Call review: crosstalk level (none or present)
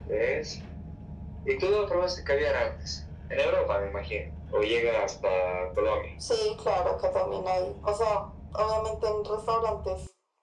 none